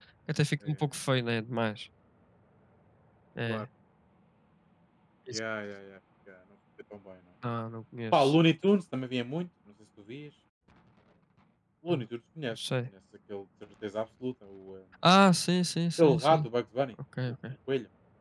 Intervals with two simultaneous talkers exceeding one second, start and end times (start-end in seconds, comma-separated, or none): none